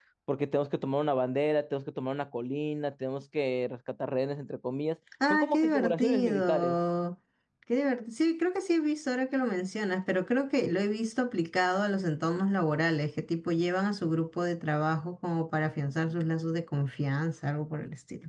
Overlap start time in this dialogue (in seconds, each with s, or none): 5.1 s